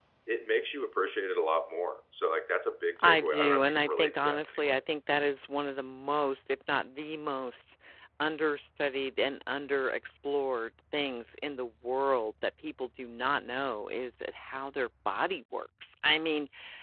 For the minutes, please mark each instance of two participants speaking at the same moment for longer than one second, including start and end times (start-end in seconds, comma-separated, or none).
3.0-4.8